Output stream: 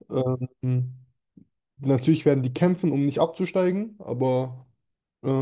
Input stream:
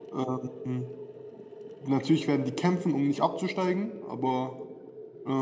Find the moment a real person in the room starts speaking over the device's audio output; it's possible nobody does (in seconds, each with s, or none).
none